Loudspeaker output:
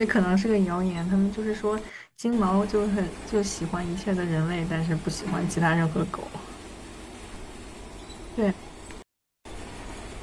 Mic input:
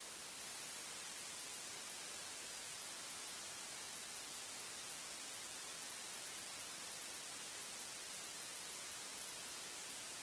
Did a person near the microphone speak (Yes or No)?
No